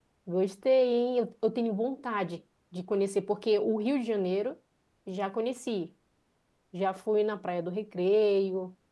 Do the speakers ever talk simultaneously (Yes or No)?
No